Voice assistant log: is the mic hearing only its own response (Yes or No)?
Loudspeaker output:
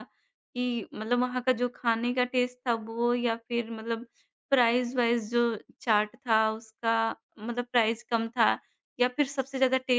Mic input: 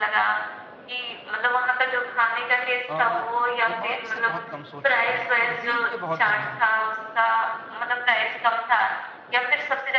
No